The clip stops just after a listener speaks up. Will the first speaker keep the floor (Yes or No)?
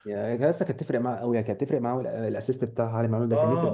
No